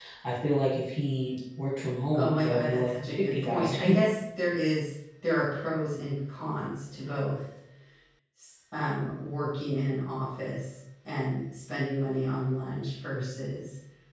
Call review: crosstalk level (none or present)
present